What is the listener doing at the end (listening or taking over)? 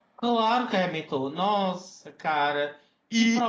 taking over